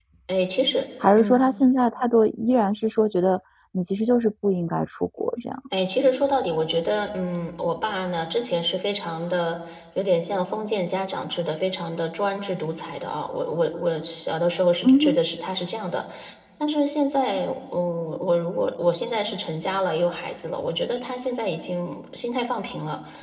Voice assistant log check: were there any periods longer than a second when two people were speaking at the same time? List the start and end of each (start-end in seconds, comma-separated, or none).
none